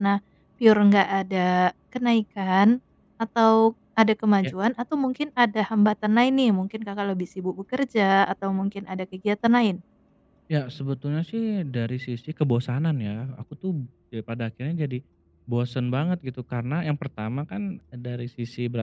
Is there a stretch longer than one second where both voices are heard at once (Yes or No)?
No